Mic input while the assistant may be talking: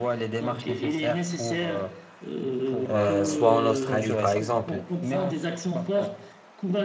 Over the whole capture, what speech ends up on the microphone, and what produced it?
both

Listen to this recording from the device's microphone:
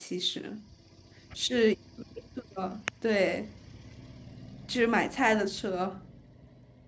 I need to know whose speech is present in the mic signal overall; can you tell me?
user only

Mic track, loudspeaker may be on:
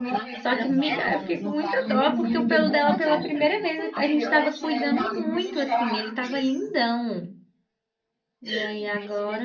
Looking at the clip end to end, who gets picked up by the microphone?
both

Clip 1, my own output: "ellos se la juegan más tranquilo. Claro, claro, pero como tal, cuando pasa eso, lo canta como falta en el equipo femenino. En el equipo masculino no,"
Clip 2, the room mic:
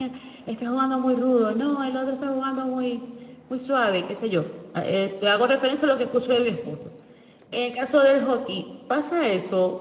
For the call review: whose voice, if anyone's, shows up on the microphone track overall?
user only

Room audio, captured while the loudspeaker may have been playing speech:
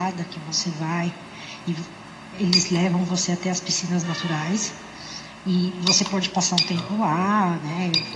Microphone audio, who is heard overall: both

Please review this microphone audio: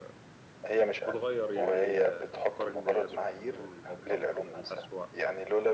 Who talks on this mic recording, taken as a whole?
both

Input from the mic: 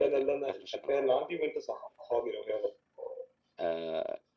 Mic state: echo only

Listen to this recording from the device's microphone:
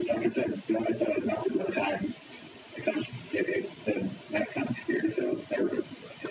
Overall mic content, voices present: echo only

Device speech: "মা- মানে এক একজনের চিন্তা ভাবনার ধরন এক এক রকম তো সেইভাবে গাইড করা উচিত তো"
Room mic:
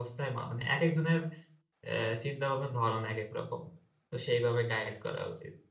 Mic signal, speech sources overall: echo only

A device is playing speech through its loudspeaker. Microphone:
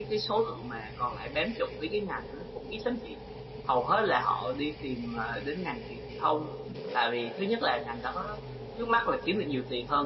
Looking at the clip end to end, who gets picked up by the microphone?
user only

